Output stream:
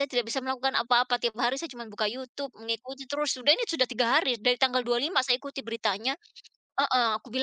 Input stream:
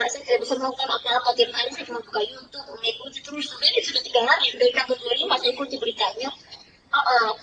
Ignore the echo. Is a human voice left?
No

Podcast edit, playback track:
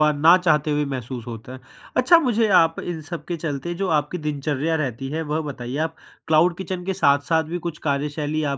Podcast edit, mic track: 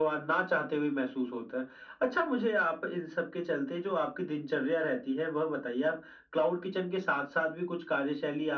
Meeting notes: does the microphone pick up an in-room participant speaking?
No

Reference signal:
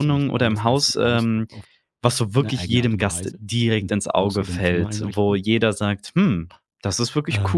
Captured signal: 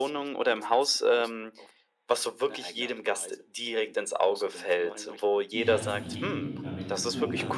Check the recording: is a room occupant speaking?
Yes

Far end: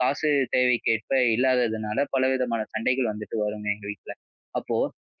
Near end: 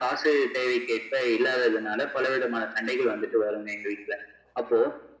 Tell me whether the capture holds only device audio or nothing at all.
Yes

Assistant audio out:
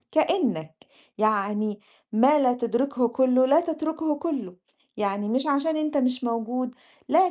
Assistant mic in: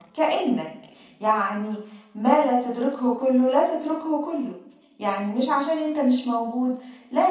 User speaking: No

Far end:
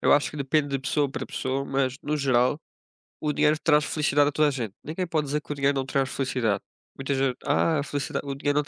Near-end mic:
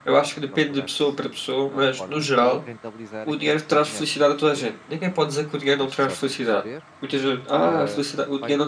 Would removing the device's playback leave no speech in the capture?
No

